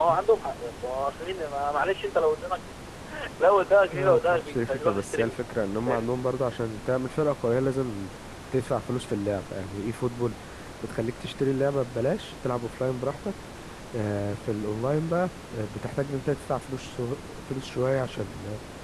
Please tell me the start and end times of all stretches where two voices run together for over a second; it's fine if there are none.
3.9-5.4

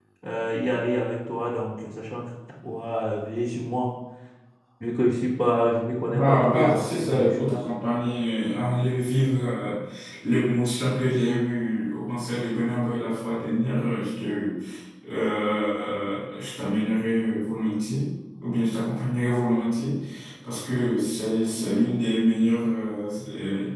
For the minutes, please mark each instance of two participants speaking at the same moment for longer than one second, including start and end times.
6.1-7.5

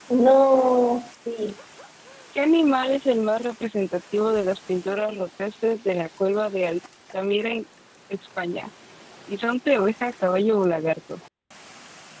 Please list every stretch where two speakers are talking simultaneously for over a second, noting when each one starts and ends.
none

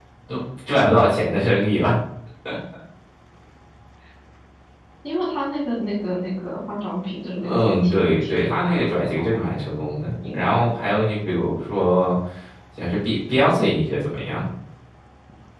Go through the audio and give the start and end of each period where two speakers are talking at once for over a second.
7.4-9.4

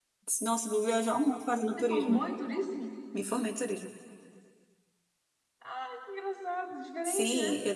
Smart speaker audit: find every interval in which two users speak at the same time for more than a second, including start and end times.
none

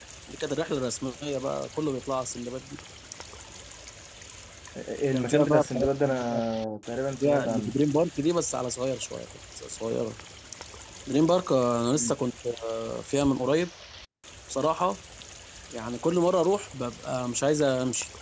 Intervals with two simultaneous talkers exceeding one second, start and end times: 5.1-6.4

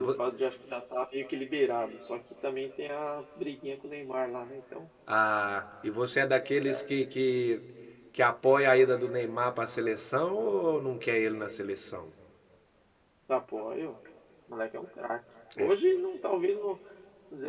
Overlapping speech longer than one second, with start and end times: none

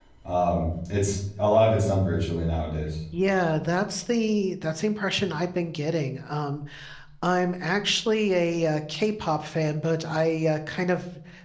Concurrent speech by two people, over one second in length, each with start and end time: none

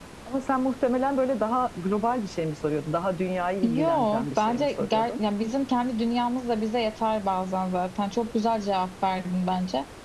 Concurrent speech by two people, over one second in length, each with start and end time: 3.6-5.1

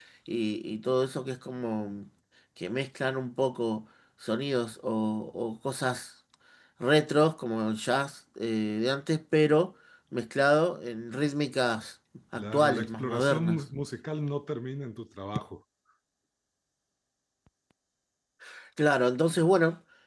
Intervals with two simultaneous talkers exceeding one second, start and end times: 12.4-13.6

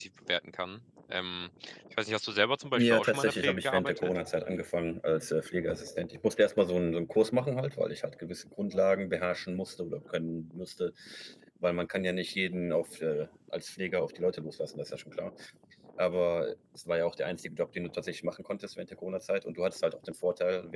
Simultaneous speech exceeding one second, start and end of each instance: 2.7-4.2

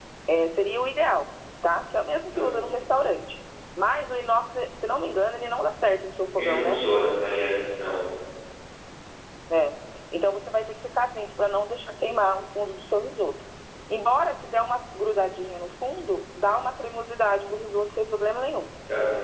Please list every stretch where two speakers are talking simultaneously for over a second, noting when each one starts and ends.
none

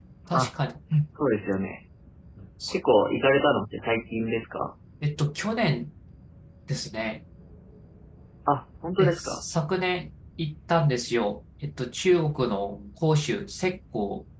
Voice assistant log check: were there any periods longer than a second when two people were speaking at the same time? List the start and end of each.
none

